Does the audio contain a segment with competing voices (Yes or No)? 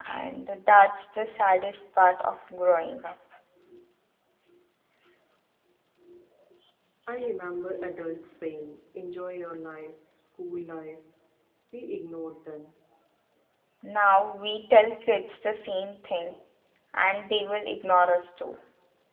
No